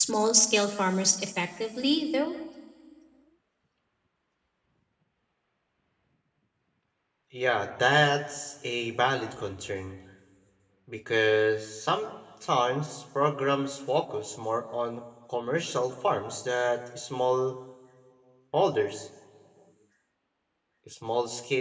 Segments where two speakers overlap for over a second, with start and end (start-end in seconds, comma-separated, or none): none